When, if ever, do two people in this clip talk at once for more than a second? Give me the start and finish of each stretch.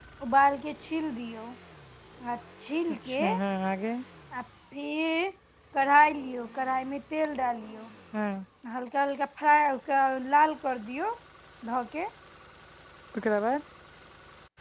none

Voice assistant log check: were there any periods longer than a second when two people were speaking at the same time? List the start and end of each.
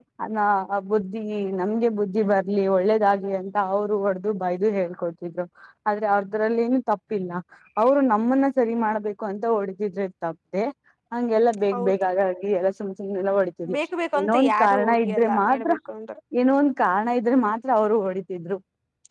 14.2-15.7

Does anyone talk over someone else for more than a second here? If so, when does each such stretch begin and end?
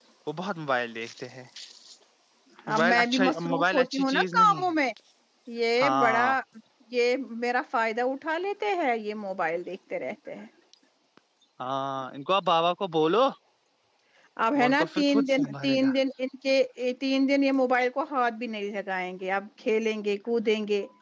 2.7-4.6, 14.6-15.9

